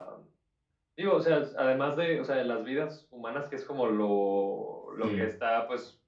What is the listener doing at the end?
listening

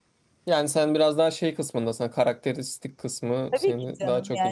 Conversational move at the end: taking over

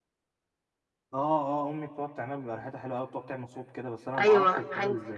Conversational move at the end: taking over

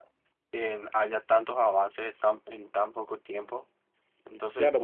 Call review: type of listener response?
taking over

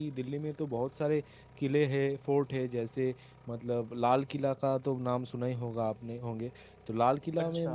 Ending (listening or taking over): listening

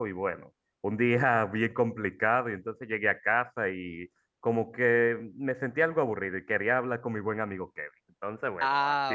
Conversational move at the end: taking over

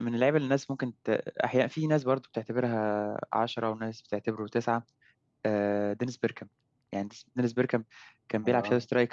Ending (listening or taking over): listening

